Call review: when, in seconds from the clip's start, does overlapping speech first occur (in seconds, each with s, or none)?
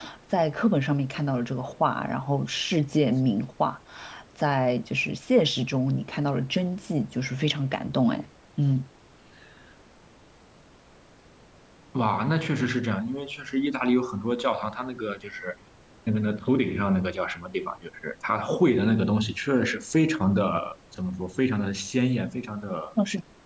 none